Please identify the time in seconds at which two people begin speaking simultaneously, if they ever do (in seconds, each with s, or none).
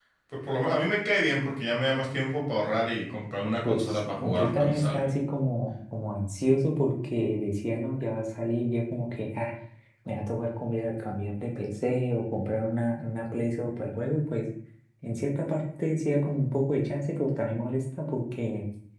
3.6 s